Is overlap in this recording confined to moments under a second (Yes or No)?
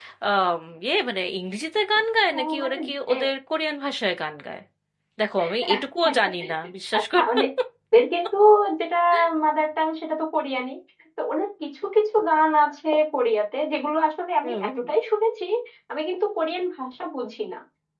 Yes